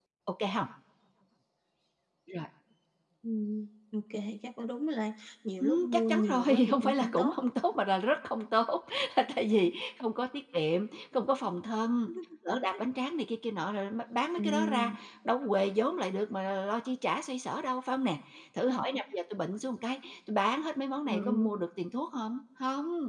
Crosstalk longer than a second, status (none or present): present